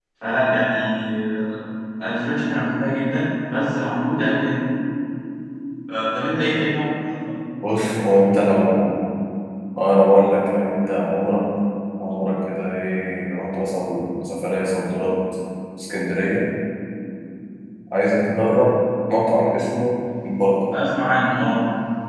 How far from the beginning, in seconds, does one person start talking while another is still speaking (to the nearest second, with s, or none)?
none